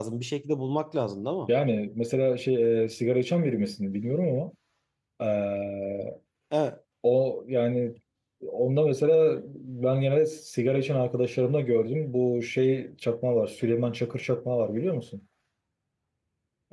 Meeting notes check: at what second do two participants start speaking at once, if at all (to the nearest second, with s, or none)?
none